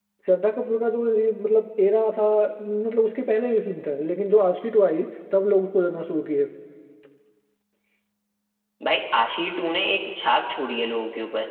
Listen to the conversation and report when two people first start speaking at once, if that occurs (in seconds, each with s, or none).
none